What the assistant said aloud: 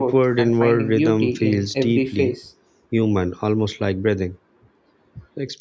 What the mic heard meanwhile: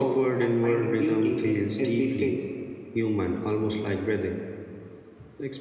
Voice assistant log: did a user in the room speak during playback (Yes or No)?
No